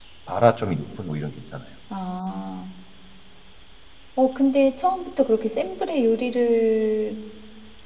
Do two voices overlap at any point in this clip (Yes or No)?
No